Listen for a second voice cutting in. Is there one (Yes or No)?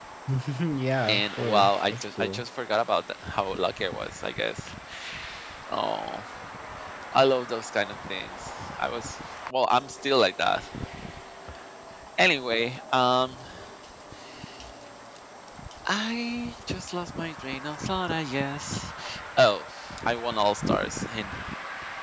Yes